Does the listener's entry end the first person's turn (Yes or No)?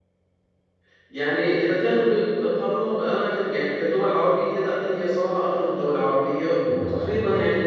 No